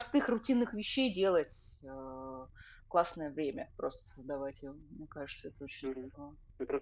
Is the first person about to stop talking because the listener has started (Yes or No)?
Yes